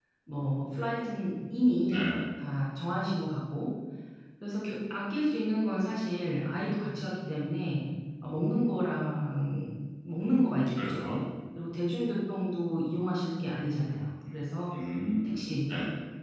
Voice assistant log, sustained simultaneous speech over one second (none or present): none